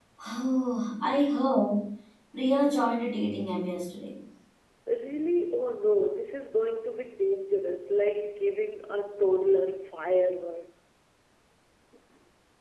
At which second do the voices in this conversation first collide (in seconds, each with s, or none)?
none